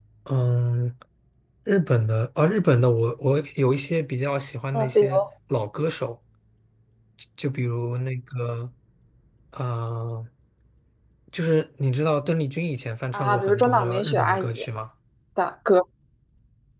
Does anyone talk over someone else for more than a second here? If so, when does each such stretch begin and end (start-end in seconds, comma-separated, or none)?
13.1-14.7